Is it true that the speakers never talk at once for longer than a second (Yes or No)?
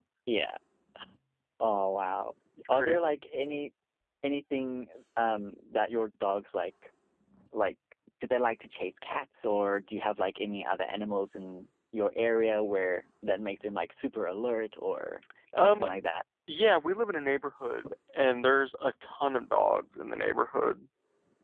Yes